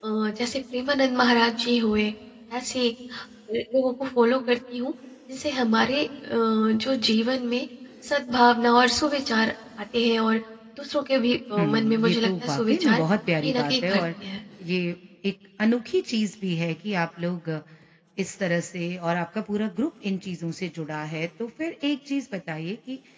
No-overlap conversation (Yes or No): No